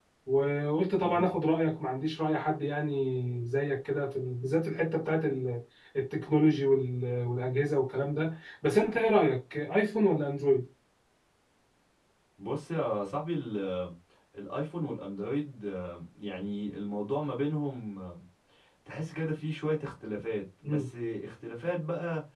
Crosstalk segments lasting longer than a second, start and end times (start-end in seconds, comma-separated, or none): none